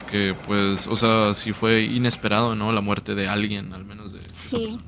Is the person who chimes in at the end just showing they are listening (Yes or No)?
No